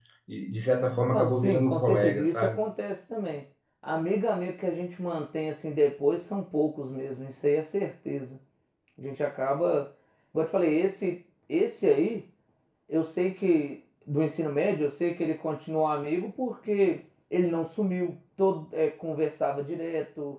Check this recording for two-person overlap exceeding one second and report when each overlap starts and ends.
1.1-2.6

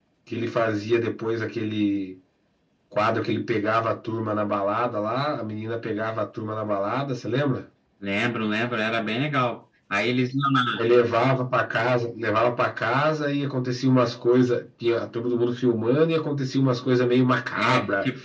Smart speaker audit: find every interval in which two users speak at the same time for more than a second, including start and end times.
none

